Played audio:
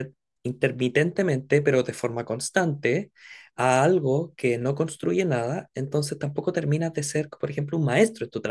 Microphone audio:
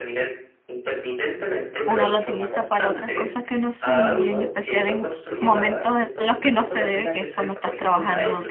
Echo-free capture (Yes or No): No